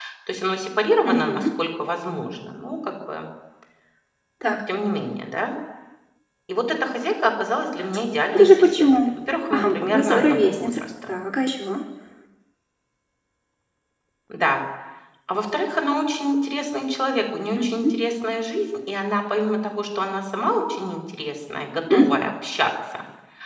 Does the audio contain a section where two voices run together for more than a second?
Yes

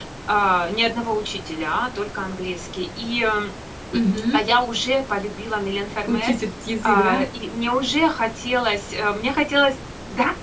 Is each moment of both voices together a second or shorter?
Yes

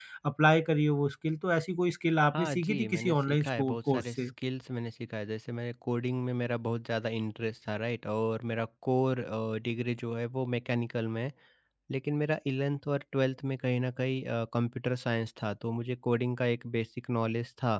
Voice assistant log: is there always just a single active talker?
No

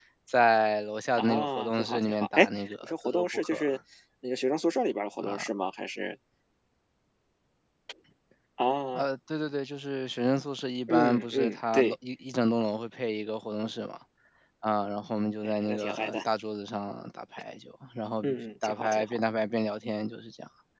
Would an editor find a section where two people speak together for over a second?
Yes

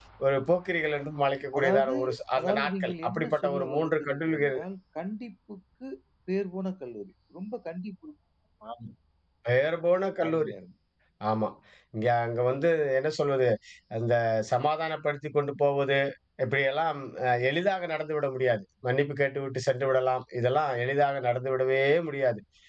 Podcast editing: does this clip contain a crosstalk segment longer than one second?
Yes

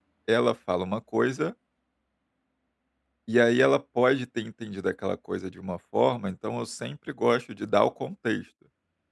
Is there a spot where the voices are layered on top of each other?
No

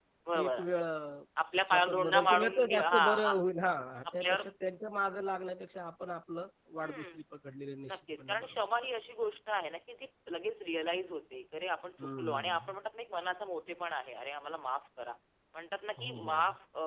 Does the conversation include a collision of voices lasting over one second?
Yes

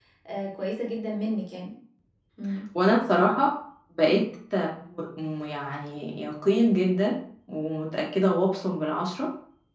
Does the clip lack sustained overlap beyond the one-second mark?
Yes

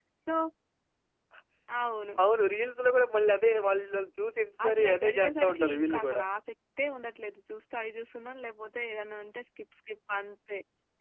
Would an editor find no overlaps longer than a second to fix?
No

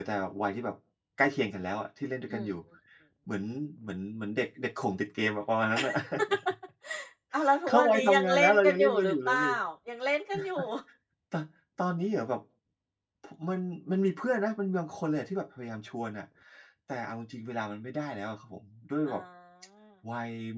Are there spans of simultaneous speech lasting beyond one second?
Yes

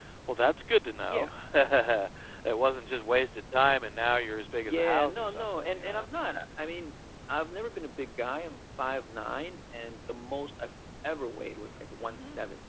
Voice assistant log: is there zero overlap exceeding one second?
No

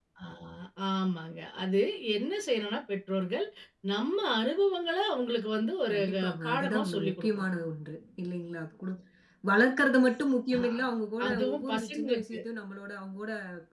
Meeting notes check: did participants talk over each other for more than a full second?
Yes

